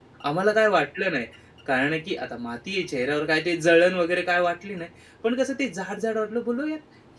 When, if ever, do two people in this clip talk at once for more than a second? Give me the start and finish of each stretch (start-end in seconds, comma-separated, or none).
none